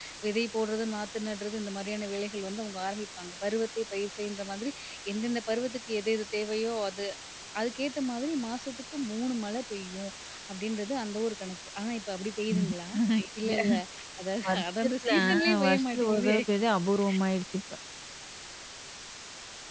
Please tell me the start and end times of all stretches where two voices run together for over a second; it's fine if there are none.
14.5-16.4

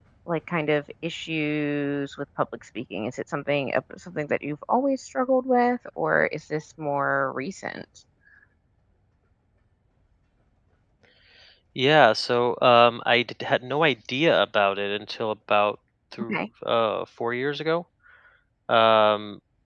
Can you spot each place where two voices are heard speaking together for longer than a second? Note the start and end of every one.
none

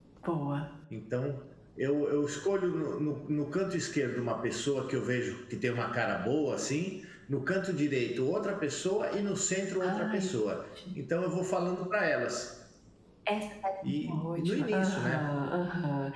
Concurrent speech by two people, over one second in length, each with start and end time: 13.8-15.2

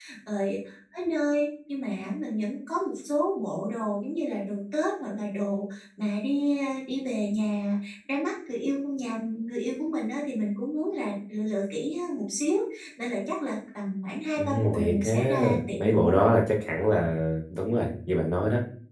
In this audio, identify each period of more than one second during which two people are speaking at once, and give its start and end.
14.4-16.2

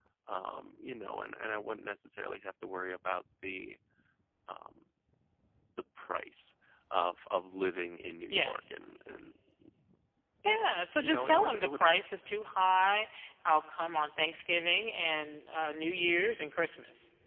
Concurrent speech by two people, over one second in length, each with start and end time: 10.5-11.9

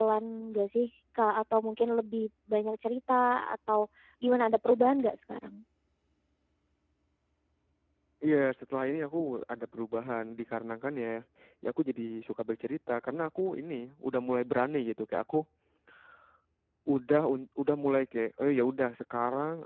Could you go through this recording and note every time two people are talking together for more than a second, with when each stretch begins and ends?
none

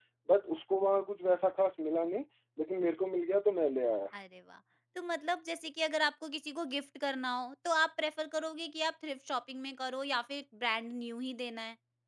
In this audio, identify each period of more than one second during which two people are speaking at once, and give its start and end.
none

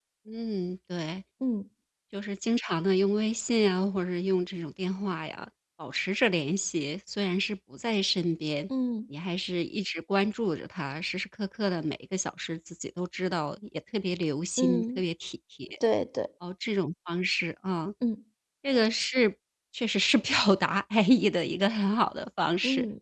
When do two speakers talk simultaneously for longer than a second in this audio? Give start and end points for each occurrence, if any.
none

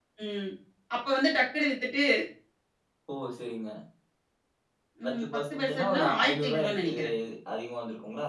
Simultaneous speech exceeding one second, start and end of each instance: 5.0-7.1

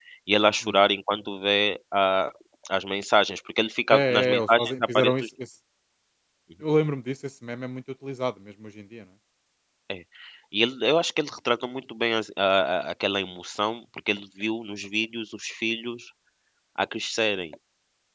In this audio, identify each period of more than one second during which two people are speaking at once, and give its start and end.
3.9-5.3

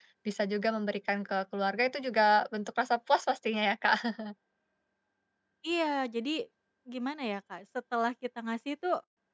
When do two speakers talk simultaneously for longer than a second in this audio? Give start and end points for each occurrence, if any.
none

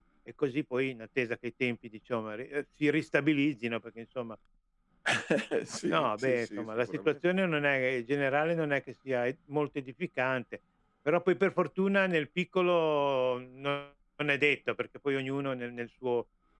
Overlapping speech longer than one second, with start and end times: 5.9-7.2

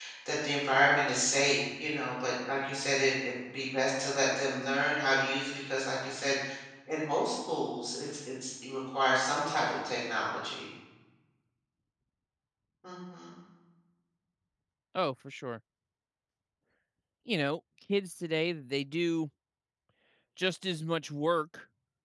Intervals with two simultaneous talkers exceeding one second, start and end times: none

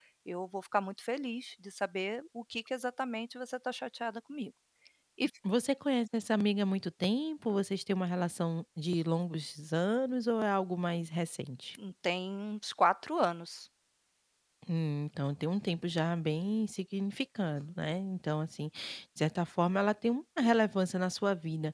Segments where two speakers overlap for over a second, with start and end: none

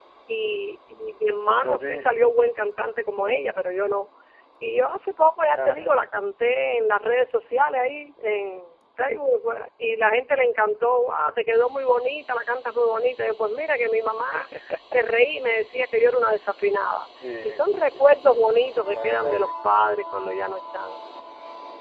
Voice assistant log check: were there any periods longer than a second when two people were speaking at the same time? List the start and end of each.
18.0-19.5

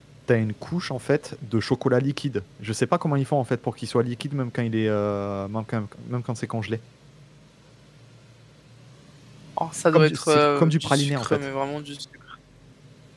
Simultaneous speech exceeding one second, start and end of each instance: 9.9-11.4

